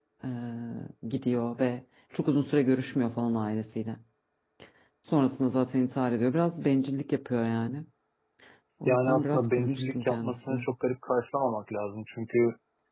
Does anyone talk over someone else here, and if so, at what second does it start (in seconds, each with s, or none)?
8.9 s